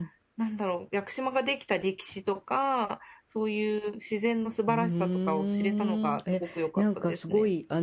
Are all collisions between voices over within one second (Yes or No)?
No